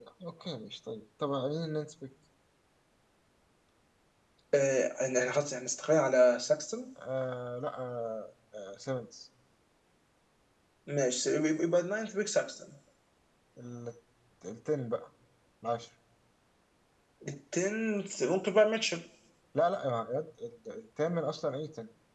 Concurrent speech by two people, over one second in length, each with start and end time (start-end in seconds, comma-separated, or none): none